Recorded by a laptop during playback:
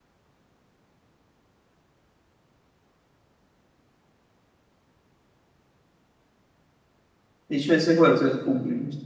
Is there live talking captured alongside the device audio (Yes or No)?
Yes